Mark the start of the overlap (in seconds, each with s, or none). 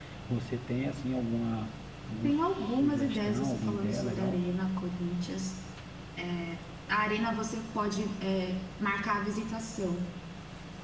2.2 s